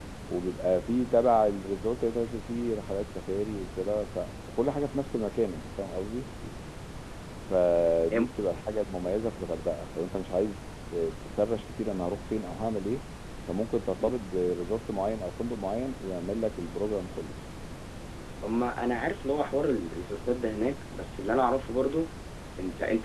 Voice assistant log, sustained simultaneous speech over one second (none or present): none